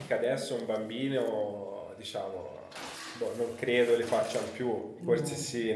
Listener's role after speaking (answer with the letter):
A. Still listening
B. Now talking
A